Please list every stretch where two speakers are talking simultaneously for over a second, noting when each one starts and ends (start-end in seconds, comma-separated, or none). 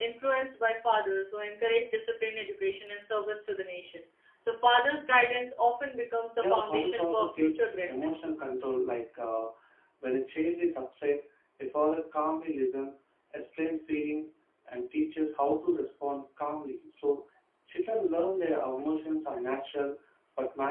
6.4-8.2